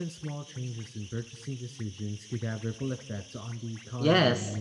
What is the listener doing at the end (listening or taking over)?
taking over